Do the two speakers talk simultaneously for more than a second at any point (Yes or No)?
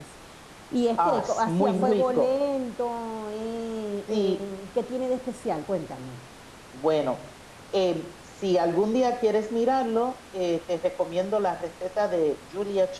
Yes